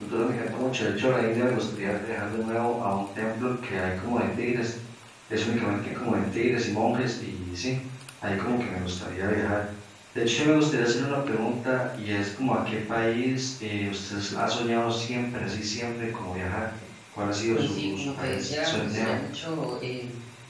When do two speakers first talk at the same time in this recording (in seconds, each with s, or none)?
17.5 s